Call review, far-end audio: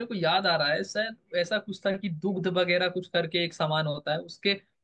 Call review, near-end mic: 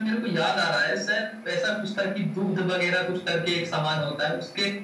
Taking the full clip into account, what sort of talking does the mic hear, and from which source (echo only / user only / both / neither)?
echo only